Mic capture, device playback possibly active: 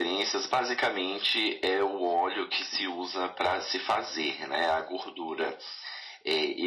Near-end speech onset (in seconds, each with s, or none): none